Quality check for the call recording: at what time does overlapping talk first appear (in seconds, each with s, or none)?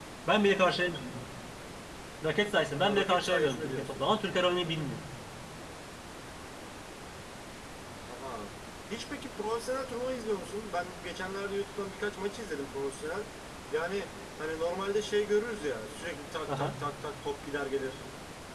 2.8 s